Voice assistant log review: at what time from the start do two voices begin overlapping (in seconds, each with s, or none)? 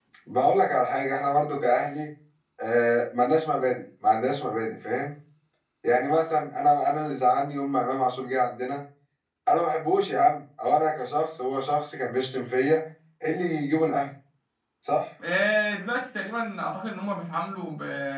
none